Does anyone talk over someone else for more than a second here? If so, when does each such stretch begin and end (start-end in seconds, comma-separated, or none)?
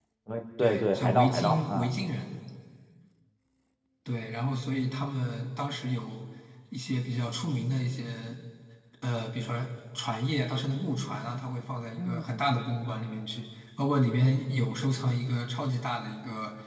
0.6-1.9